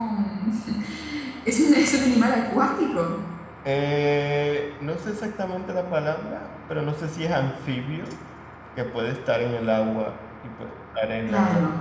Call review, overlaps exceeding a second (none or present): none